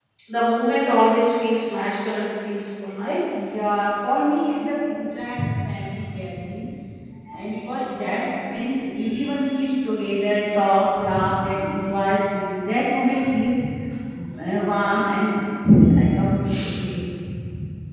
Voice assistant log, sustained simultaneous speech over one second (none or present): none